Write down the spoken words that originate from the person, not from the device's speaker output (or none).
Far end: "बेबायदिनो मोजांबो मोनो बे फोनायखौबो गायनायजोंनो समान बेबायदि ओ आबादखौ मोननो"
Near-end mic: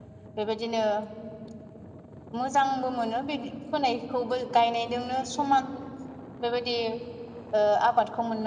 none